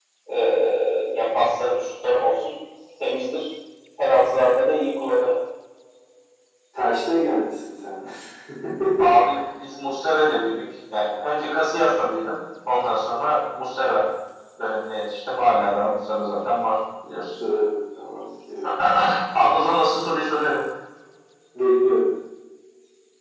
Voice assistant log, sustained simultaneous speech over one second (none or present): none